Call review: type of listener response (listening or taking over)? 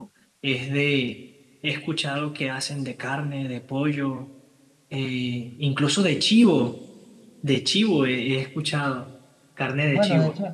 taking over